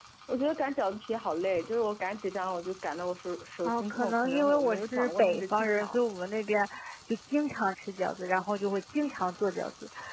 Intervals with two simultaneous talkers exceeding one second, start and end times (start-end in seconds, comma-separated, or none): 3.6-6.0